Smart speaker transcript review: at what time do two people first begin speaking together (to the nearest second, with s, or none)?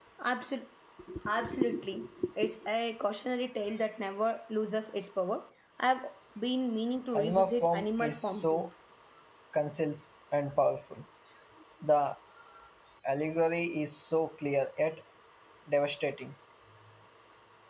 7 s